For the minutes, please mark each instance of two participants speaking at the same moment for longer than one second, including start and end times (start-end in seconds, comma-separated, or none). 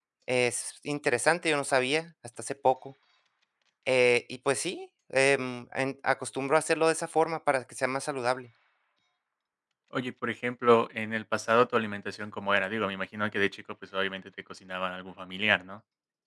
none